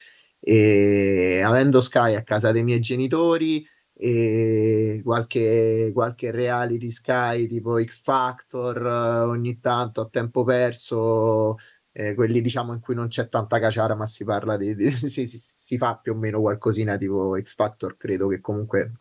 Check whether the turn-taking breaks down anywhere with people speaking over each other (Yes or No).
No